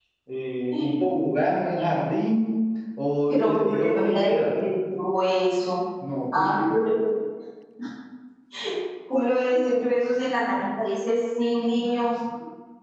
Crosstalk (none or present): present